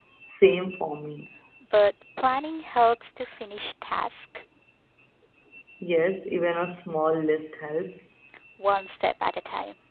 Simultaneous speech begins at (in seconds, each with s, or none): none